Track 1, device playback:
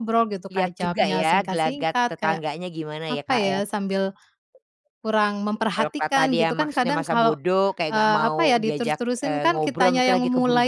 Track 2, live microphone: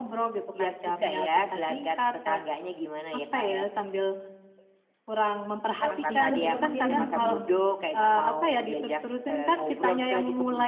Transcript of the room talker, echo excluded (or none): Pas sibuk mungkin, hmm.